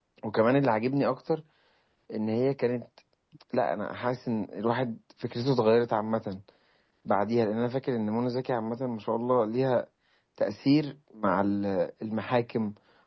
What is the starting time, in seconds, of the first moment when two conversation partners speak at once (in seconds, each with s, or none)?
none